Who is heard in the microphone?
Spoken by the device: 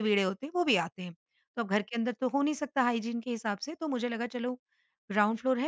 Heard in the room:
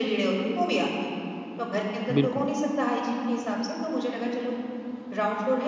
both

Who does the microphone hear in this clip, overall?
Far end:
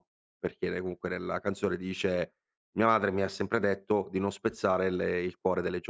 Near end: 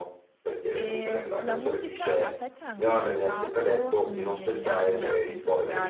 both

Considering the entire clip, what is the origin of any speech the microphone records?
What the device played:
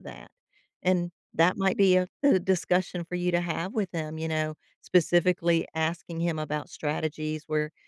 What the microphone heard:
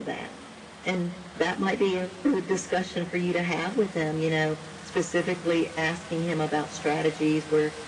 echo only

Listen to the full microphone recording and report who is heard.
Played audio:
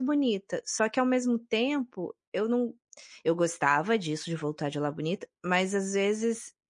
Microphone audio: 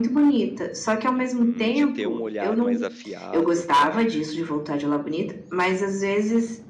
both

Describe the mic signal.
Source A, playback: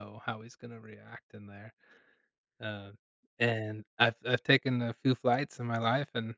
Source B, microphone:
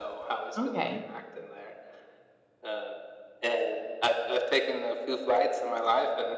both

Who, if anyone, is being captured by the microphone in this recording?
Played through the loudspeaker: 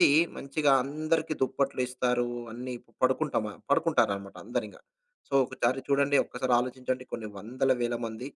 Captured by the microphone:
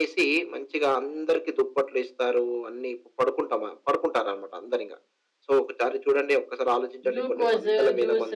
both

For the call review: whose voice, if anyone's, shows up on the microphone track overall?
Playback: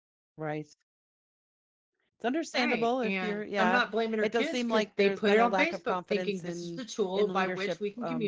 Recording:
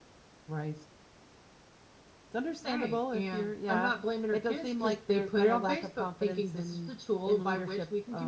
echo only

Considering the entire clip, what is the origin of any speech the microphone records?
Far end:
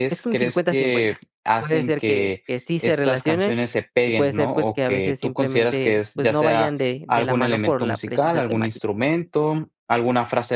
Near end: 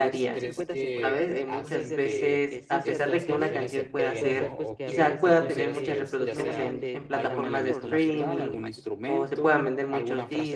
both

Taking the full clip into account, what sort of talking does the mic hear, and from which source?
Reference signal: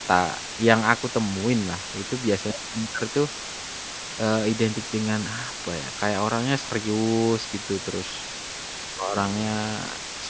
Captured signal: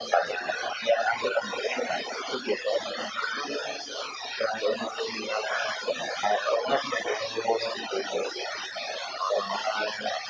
echo only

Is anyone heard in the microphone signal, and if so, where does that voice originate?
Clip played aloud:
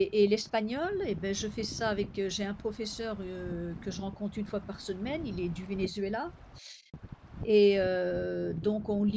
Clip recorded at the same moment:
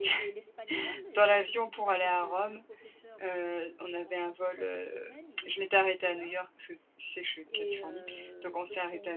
both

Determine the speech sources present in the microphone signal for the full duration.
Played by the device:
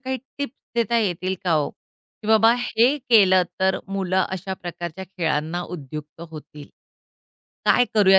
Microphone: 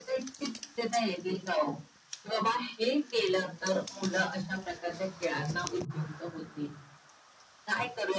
echo only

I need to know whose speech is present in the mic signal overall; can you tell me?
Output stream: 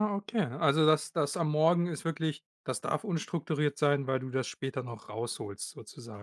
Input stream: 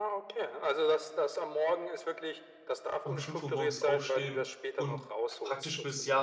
both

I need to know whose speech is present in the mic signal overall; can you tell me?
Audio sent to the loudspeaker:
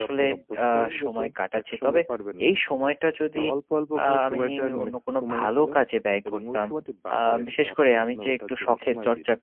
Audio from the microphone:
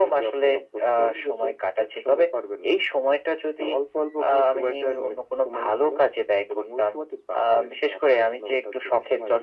echo only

